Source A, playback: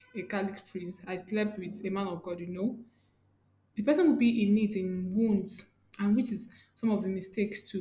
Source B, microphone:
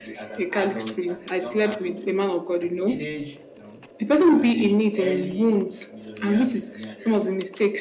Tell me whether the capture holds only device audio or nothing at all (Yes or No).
No